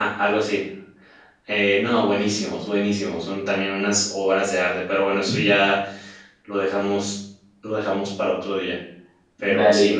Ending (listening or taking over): listening